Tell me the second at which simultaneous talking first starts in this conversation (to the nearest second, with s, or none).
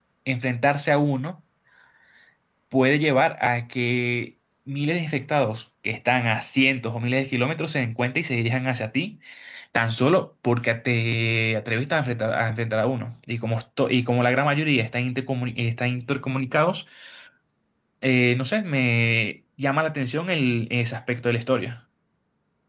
none